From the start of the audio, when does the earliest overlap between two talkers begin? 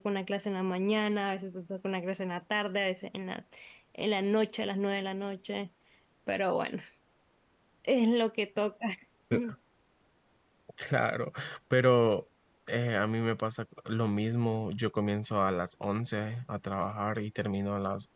none

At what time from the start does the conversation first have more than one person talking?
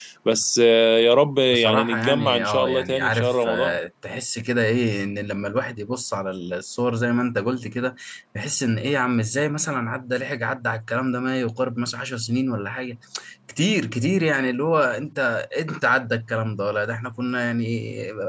1.5 s

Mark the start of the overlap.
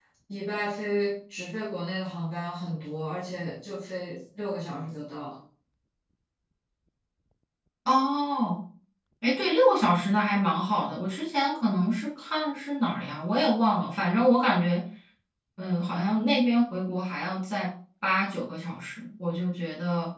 none

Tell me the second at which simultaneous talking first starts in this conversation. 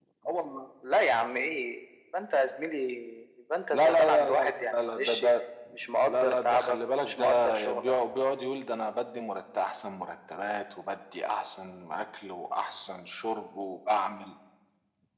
3.7 s

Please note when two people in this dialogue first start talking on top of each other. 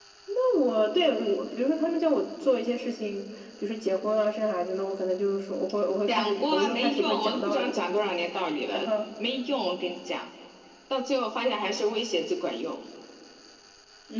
6.1 s

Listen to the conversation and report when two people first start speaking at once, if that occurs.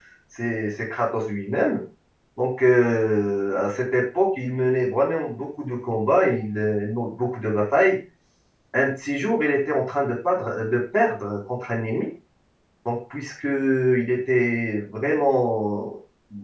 none

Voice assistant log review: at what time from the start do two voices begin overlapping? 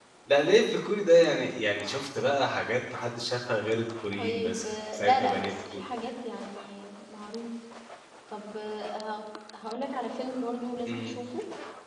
4.2 s

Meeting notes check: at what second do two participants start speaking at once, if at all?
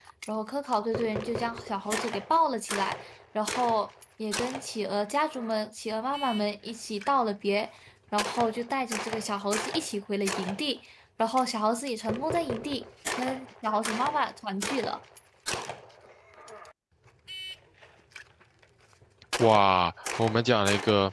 none

